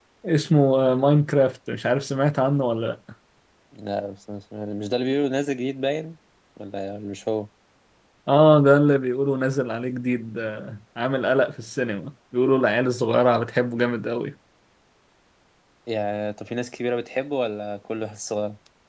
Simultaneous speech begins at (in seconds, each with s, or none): none